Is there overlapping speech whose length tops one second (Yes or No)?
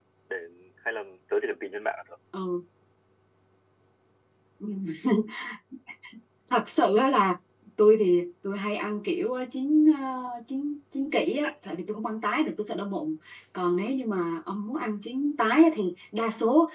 No